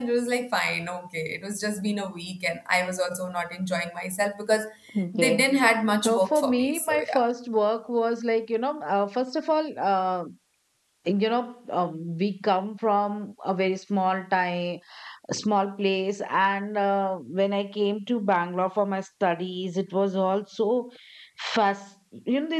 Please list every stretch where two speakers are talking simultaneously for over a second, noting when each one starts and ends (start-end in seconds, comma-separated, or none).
6.0-7.3